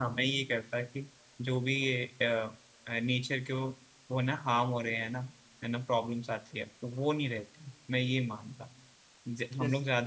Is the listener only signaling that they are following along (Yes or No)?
Yes